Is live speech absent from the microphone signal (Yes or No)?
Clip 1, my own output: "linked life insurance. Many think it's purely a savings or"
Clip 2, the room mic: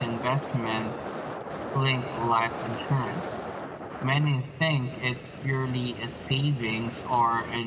Yes